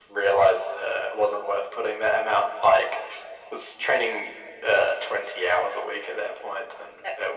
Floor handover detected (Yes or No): Yes